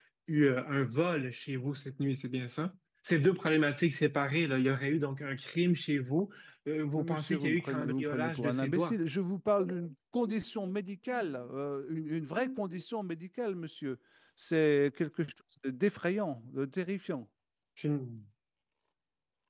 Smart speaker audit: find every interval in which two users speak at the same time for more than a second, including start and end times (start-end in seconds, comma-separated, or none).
7.0-8.9